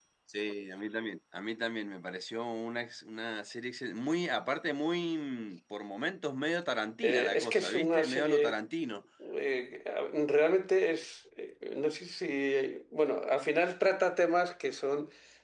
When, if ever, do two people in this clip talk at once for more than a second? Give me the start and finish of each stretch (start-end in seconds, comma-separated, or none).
7.0-8.6